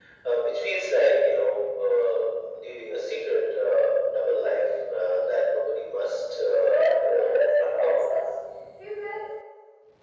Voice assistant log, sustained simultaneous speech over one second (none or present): present